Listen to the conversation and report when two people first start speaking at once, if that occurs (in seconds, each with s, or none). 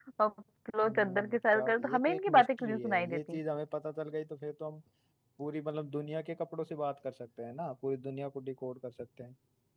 0.8 s